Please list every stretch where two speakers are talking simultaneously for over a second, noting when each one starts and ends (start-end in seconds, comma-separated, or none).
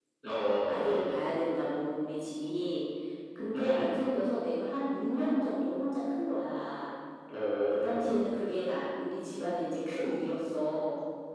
none